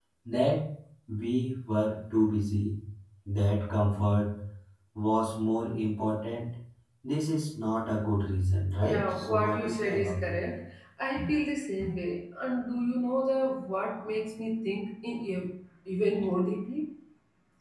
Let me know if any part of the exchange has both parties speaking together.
Yes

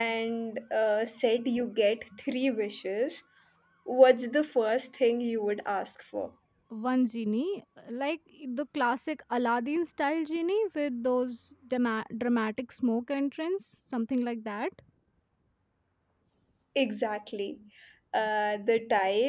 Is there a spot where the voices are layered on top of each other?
No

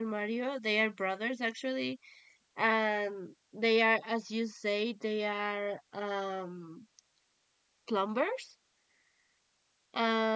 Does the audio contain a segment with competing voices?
No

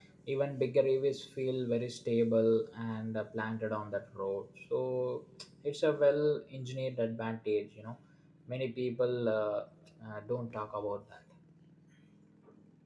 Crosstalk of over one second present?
No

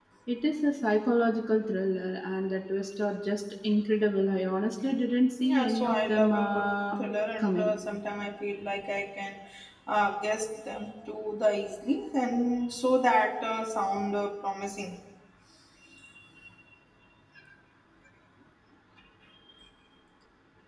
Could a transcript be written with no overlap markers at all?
No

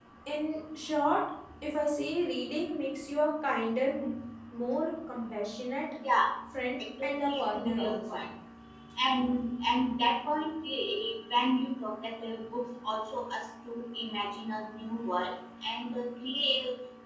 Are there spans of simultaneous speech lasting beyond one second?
Yes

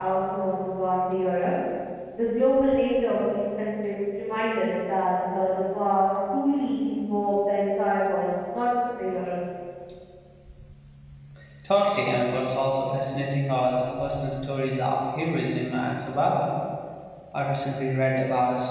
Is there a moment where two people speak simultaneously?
No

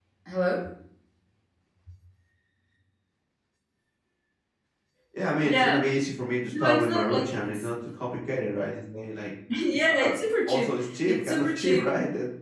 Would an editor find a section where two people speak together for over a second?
Yes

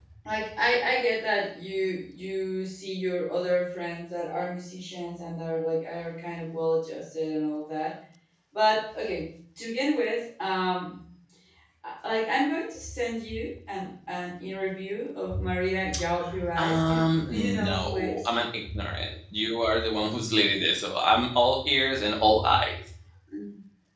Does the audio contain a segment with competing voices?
Yes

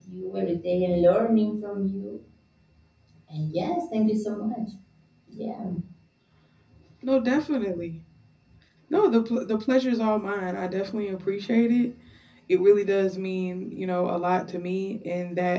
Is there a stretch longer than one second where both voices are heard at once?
No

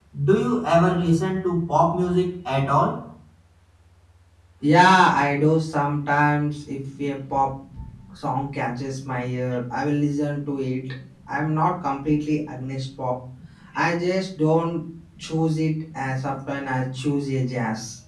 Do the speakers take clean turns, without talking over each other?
Yes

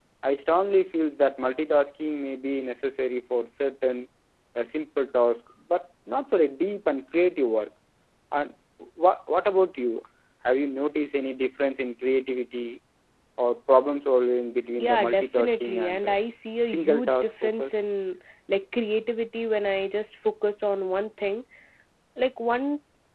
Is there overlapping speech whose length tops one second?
Yes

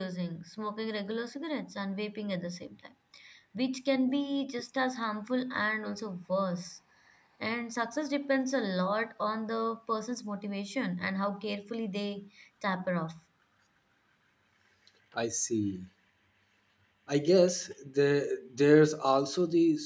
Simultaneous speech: No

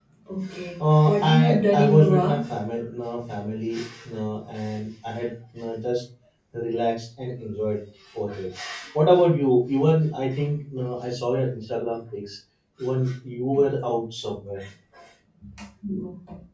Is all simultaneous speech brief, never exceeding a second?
No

